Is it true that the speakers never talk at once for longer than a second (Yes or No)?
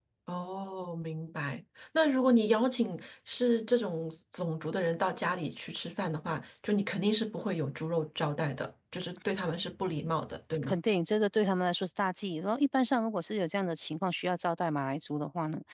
Yes